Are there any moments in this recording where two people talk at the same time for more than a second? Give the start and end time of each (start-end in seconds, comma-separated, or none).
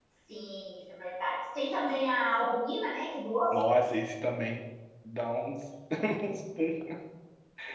none